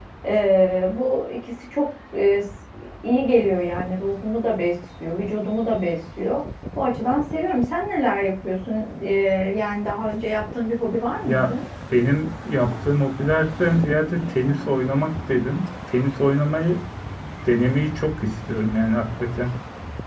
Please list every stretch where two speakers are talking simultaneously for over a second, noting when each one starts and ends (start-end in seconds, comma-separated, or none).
none